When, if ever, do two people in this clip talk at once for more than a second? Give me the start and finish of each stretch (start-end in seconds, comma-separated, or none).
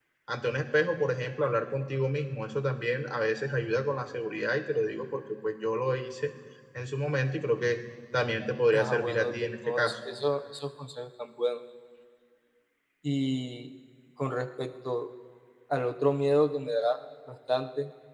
8.7-9.9